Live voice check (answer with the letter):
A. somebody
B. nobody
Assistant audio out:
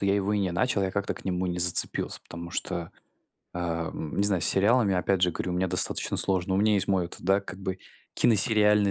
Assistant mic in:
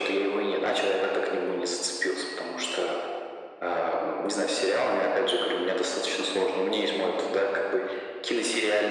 B